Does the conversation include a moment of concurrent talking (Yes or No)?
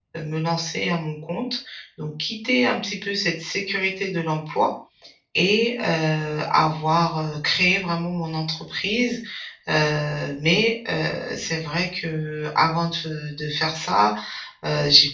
No